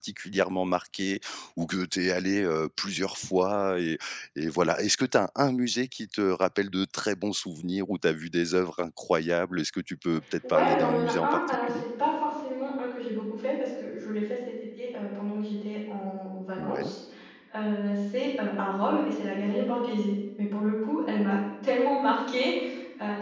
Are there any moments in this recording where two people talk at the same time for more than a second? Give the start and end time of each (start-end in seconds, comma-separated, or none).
10.5-11.8